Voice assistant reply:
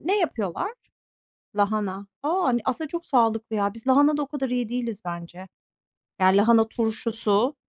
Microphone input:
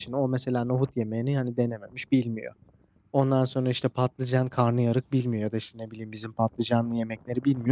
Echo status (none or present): none